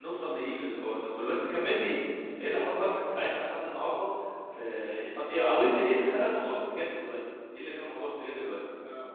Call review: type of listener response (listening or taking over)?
taking over